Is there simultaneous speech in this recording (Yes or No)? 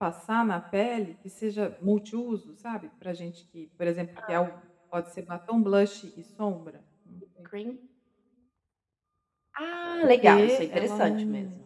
Yes